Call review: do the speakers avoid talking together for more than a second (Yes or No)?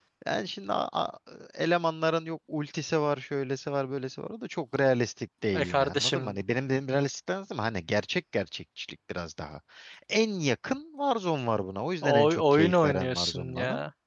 No